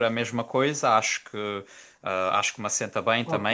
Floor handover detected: No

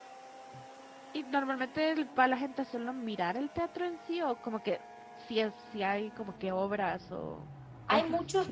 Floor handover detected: Yes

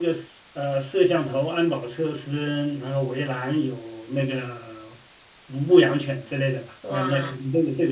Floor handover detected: No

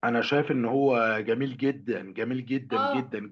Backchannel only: No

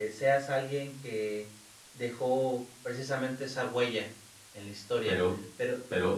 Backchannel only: No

